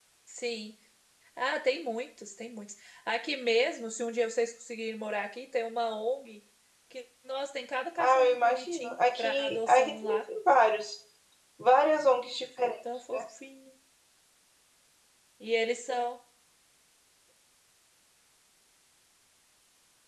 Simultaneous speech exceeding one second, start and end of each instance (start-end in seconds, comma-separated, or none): 8.0-10.2